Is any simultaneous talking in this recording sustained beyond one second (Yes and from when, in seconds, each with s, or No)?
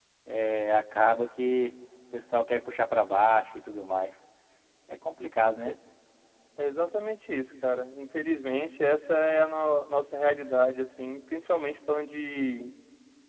No